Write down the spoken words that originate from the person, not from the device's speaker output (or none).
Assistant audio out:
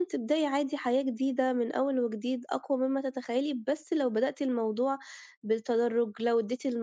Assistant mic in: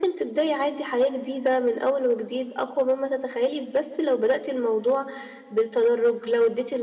none